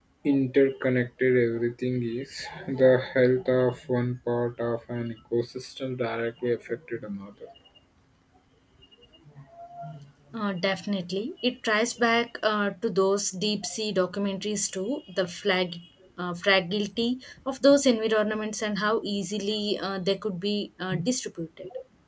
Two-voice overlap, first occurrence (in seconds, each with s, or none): none